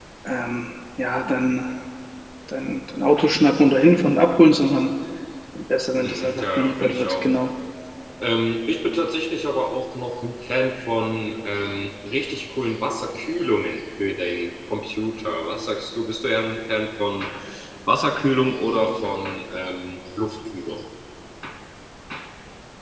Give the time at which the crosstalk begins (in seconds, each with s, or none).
6.0 s